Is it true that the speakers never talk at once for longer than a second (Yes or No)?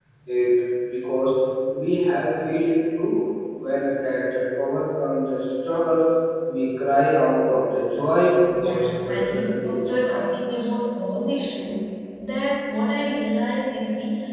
No